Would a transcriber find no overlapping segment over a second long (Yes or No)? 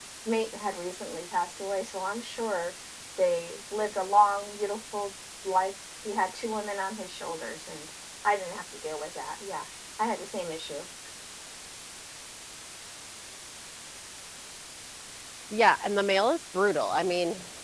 Yes